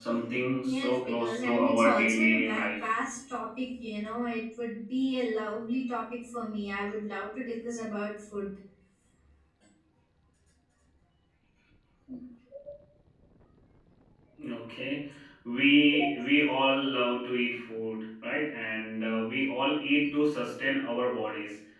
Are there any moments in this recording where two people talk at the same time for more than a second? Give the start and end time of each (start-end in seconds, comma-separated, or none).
0.6-2.9